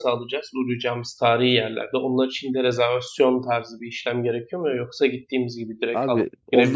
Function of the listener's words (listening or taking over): taking over